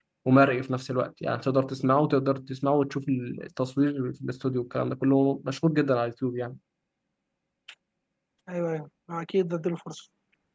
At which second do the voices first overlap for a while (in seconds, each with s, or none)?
none